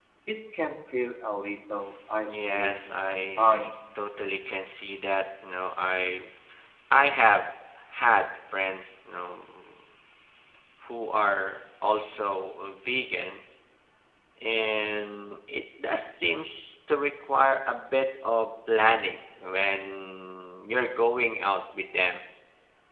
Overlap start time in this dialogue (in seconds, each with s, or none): 2.3 s